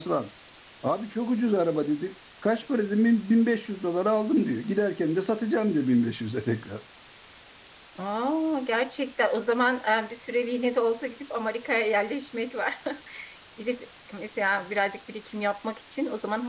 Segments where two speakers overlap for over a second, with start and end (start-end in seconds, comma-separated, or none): none